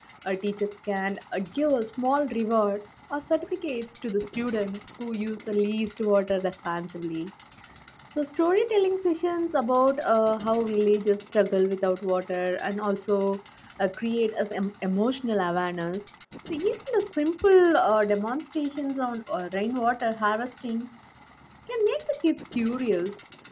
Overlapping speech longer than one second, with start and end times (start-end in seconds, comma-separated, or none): none